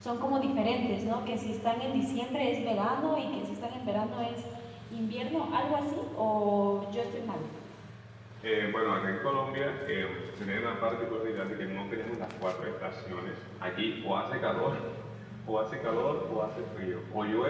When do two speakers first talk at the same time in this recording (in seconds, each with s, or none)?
none